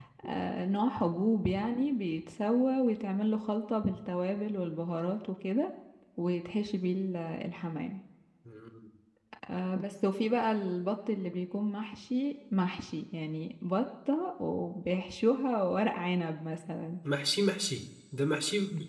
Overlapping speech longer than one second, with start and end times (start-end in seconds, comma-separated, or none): none